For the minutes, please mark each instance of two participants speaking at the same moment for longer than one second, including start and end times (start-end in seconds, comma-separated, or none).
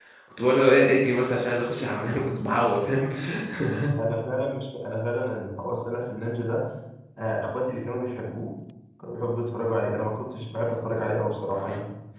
none